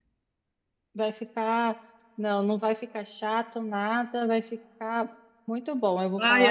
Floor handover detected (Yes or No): Yes